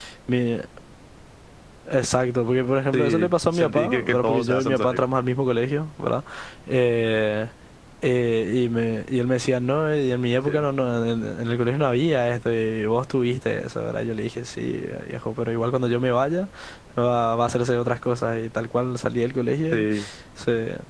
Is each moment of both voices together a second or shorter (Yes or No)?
No